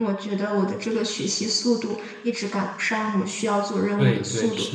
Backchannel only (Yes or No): No